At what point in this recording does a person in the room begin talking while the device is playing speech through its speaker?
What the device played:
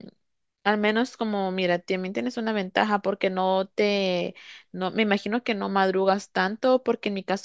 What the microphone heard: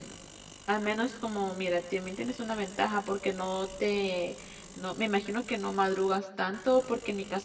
none

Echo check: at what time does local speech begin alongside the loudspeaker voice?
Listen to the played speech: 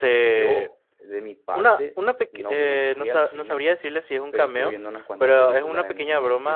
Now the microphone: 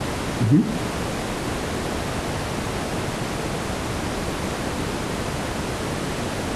0 s

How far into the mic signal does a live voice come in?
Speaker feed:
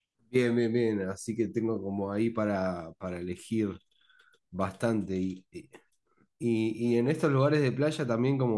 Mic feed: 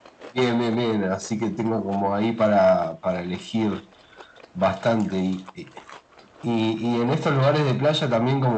none

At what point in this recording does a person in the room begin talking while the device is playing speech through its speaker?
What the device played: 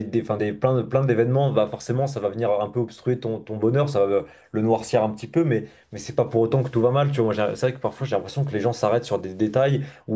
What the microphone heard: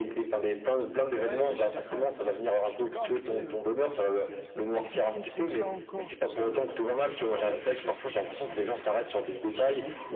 1 s

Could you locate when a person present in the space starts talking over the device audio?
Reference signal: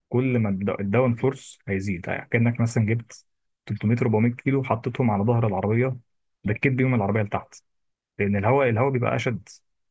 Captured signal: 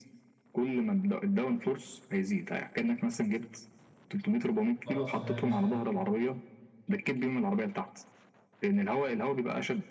5 s

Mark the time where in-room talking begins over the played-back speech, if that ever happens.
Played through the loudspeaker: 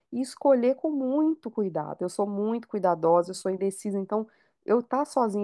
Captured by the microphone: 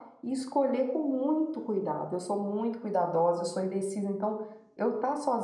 none

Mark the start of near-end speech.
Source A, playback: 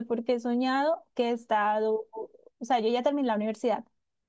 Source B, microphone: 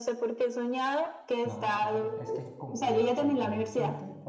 1 s

